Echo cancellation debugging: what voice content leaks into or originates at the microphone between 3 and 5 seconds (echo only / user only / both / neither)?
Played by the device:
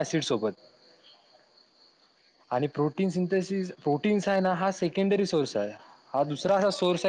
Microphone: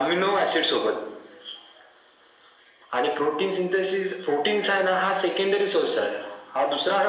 echo only